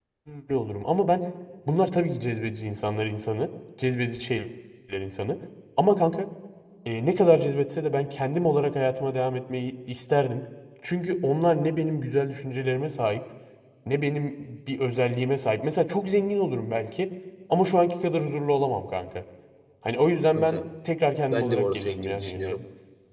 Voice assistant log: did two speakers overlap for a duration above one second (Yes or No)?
Yes